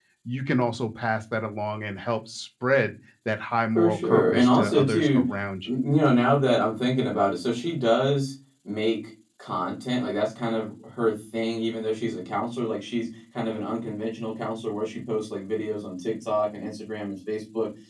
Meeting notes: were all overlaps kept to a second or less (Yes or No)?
No